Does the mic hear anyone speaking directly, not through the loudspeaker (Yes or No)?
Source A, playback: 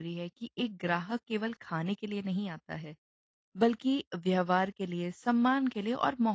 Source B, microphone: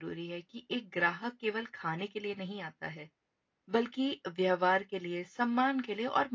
No